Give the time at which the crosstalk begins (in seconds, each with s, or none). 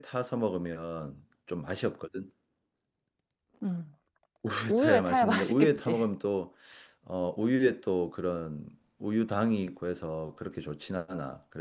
4.7 s